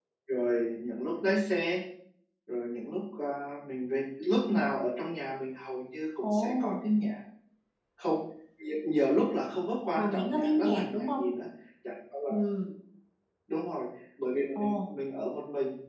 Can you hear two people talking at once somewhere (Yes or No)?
Yes